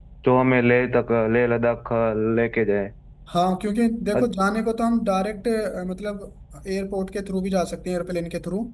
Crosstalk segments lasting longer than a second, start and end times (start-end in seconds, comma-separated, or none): none